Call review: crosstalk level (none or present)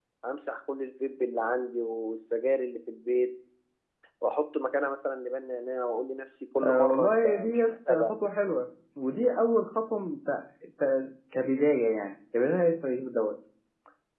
present